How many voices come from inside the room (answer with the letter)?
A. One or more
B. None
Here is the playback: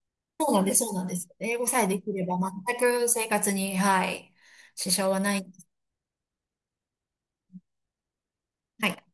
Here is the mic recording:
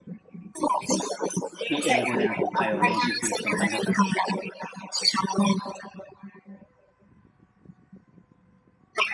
A